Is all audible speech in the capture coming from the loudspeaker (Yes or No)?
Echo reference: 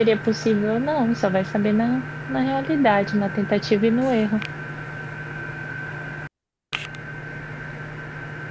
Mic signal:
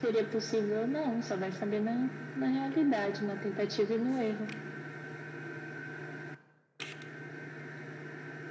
Yes